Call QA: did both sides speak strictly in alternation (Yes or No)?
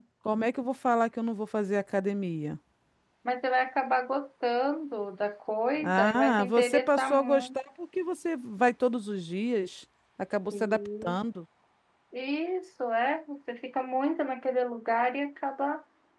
No